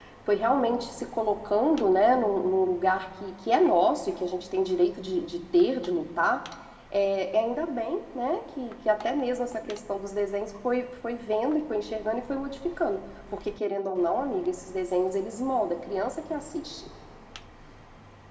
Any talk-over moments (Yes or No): No